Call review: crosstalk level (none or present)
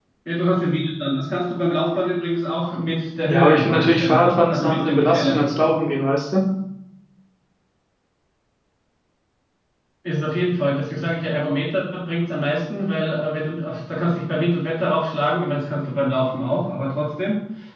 present